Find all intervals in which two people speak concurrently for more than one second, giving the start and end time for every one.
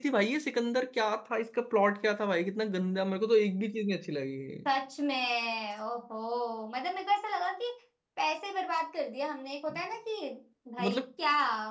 none

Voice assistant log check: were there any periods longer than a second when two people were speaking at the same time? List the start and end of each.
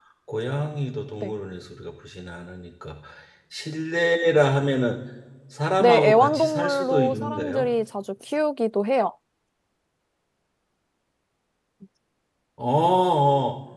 5.8-7.7

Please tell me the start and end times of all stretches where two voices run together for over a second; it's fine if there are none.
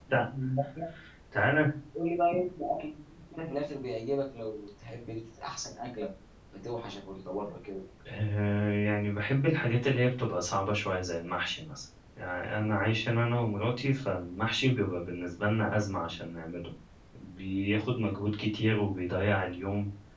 none

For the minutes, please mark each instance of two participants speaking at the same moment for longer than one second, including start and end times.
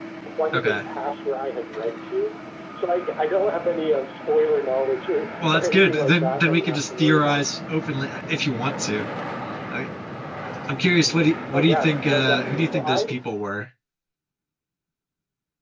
5.4-7.5, 11.5-13.2

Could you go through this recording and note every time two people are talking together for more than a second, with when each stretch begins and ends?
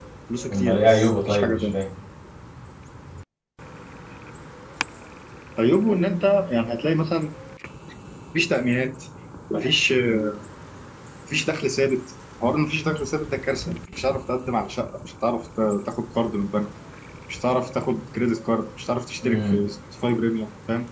0.5-1.7

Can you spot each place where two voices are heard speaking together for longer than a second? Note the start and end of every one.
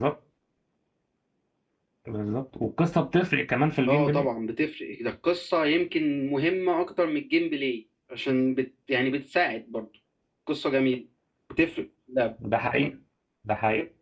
none

